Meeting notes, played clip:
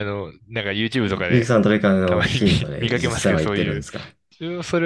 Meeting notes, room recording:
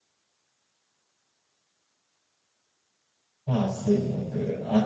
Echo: none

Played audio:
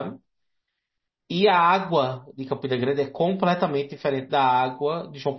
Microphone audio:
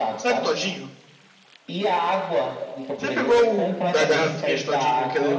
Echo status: present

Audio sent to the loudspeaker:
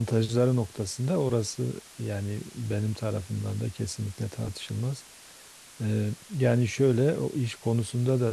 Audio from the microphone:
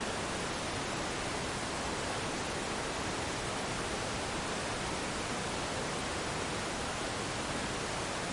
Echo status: none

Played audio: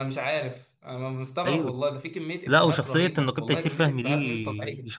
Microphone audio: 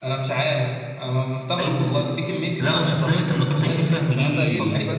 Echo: present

